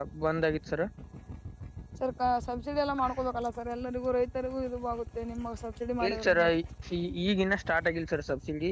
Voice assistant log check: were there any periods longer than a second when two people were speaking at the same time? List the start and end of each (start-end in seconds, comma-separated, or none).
none